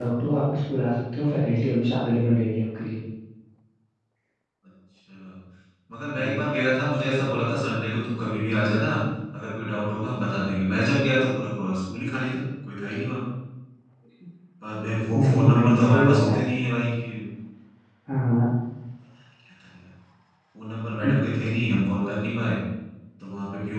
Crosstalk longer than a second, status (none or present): present